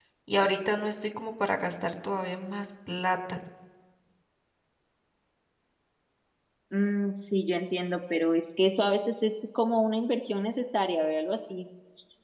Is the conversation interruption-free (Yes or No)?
Yes